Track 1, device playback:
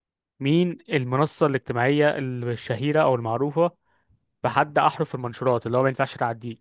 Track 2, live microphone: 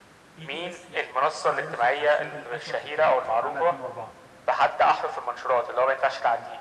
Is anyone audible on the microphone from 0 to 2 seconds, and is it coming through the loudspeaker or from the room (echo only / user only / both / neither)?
both